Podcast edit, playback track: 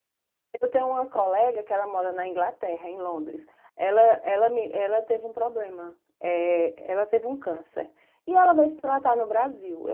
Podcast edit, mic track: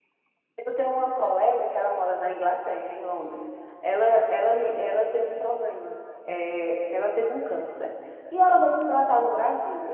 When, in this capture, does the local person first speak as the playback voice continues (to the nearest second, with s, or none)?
none